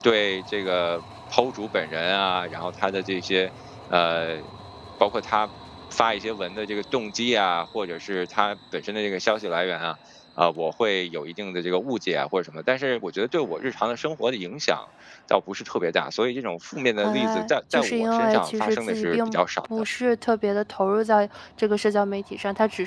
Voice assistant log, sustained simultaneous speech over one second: present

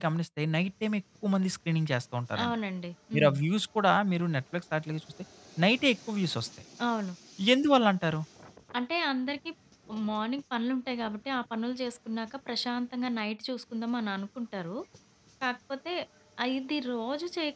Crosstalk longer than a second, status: none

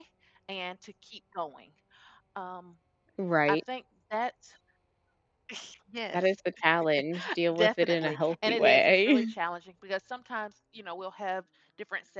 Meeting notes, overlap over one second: present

